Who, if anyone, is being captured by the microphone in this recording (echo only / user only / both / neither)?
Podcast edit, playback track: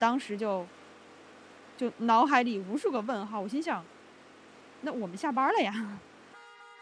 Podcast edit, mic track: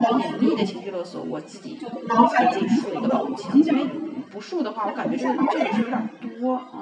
both